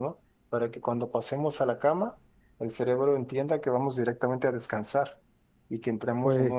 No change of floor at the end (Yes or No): Yes